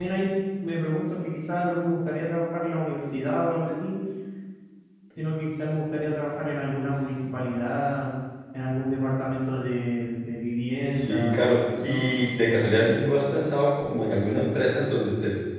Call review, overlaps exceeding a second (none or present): present